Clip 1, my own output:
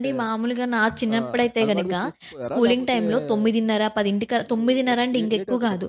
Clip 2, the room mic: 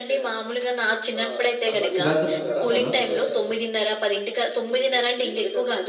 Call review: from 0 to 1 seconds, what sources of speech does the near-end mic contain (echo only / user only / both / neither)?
echo only